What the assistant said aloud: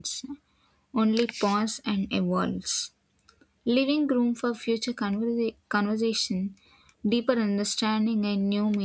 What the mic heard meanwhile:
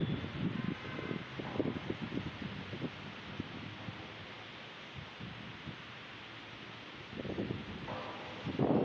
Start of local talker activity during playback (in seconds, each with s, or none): none